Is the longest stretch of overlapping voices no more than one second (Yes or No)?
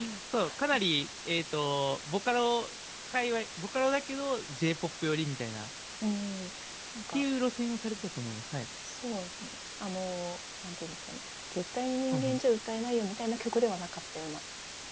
Yes